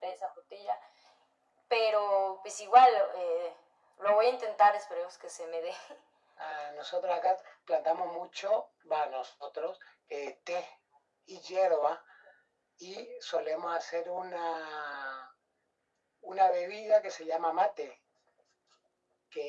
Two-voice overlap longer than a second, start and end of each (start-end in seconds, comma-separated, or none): none